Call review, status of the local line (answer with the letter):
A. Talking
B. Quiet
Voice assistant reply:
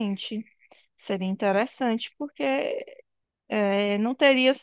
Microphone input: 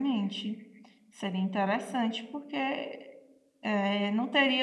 B